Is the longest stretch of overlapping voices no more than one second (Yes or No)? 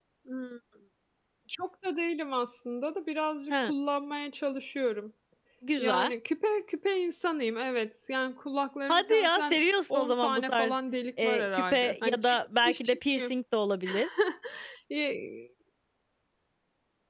No